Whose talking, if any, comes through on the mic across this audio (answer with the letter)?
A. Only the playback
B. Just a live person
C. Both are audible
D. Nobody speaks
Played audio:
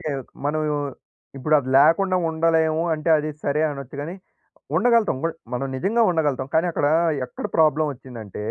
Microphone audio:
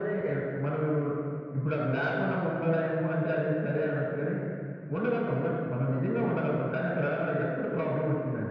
A